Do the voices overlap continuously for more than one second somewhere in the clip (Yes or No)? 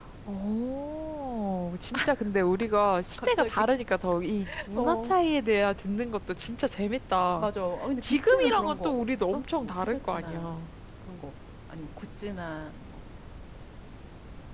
Yes